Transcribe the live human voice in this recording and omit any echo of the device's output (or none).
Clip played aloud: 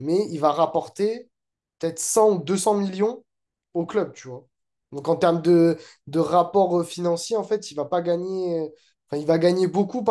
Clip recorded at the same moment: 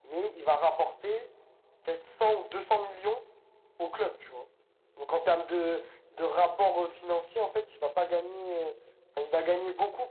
none